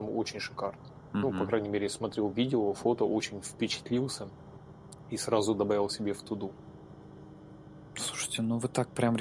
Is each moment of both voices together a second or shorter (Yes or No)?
Yes